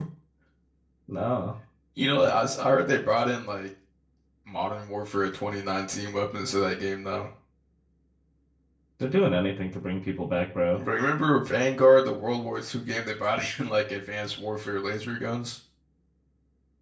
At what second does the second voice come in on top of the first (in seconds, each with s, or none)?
none